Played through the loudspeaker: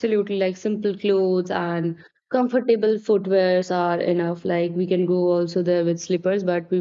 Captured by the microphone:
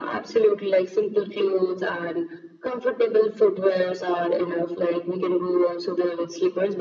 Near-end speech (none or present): none